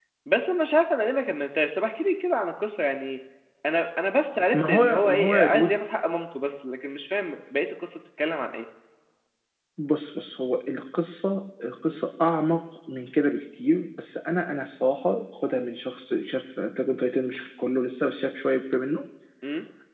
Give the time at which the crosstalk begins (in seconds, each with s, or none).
4.5 s